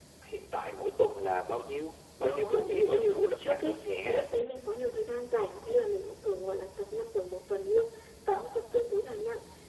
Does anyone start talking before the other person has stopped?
Yes, from 2.2 s

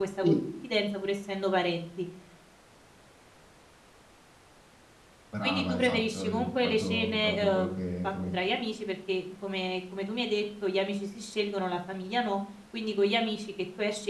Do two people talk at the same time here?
Yes, from 5.4 s

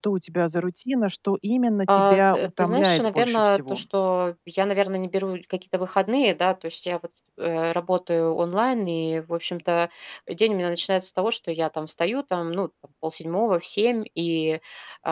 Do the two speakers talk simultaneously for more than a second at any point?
Yes, from 1.9 s

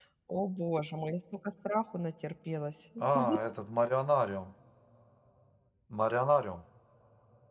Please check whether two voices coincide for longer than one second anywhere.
No

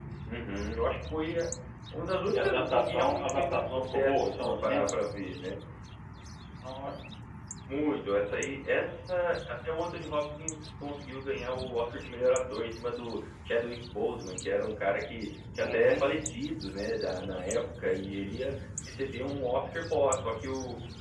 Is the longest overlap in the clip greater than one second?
Yes, from 2.3 s

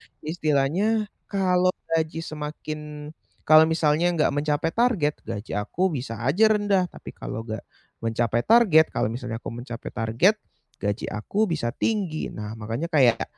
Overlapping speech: No

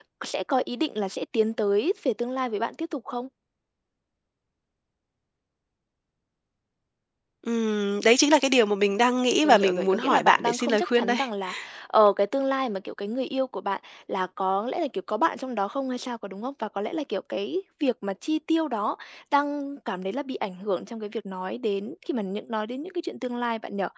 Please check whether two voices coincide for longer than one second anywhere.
Yes, from 9.4 s

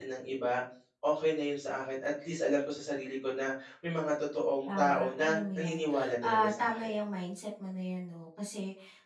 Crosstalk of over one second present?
Yes, from 4.7 s

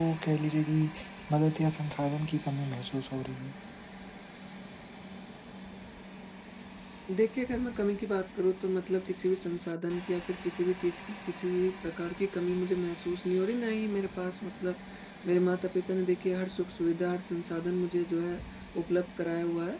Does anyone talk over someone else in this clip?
No

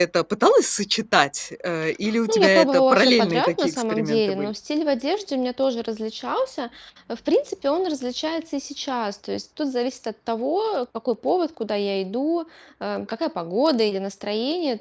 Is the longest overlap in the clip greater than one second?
Yes, from 2.3 s

